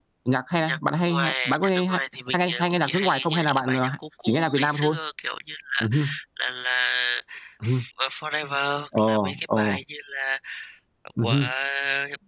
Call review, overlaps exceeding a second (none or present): present